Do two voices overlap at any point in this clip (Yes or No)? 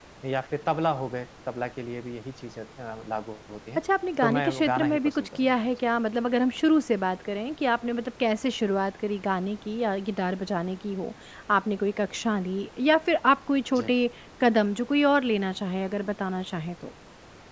Yes